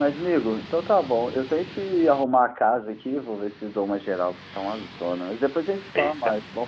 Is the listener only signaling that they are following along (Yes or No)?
No